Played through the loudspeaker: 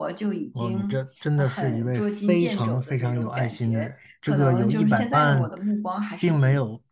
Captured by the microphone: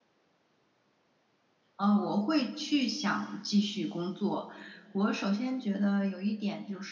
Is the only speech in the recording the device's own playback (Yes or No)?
No